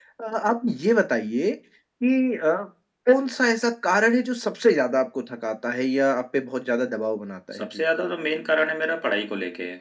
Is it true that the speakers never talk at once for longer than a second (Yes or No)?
Yes